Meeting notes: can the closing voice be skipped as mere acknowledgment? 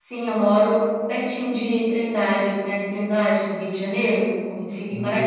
No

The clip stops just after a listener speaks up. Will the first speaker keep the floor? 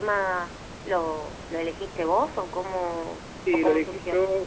No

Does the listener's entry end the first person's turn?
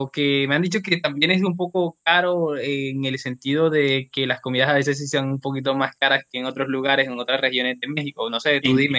Yes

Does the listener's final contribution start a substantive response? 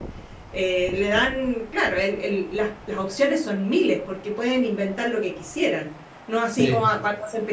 No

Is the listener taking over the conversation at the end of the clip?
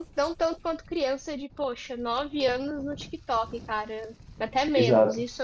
Yes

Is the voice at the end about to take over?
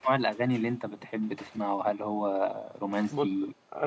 Yes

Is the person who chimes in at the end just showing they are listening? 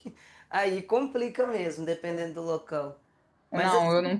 No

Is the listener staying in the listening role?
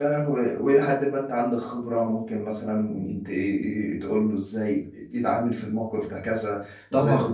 Yes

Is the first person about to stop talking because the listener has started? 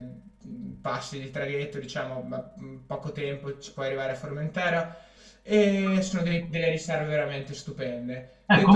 Yes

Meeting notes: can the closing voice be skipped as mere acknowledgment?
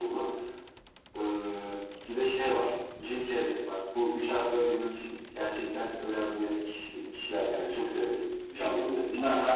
No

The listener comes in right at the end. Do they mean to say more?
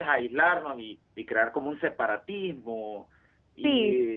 No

